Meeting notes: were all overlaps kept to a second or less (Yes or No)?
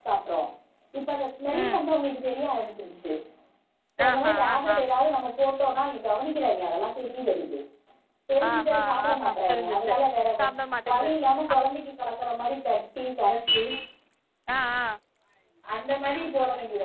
No